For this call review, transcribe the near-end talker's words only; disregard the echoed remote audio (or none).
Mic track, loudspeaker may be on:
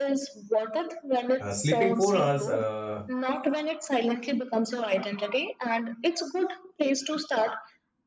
uh, sleeping four hours uh,